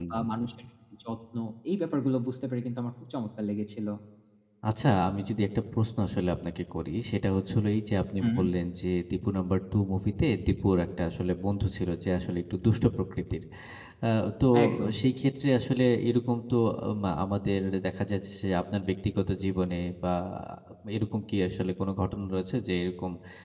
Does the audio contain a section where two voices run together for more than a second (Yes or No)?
No